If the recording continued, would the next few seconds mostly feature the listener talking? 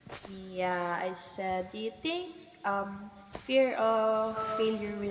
No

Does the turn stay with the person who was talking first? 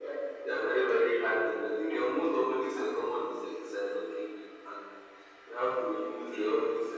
Yes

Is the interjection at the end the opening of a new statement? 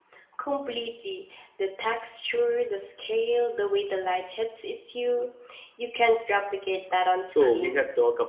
Yes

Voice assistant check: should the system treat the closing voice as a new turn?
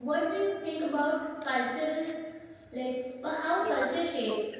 Yes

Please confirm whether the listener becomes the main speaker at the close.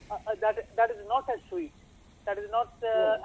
No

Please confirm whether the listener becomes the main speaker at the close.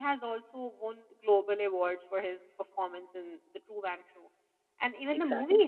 No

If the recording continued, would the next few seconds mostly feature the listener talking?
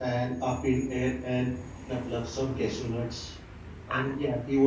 No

